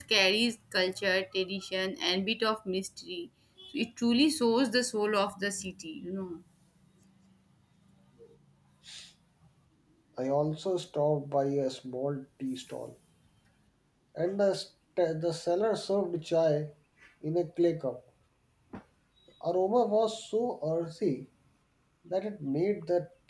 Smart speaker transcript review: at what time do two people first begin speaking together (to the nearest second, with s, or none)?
none